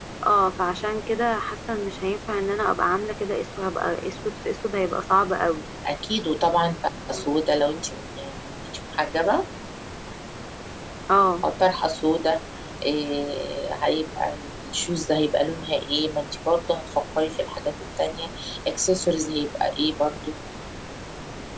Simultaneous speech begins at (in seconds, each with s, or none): none